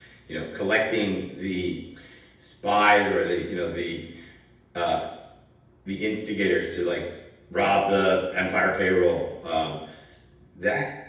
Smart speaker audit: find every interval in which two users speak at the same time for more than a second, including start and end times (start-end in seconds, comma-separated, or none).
none